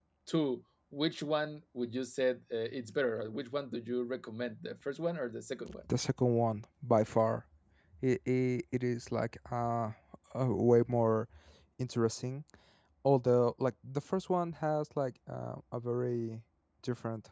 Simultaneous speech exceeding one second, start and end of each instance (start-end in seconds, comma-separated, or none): none